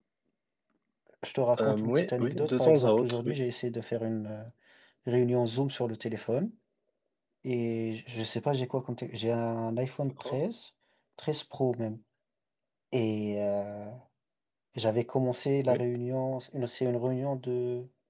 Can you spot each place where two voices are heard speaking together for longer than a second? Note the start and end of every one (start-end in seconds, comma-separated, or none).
1.6-3.4